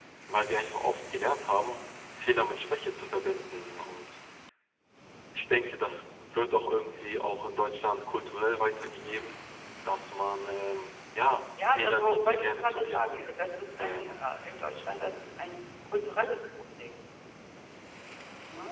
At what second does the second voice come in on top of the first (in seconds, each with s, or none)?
11.7 s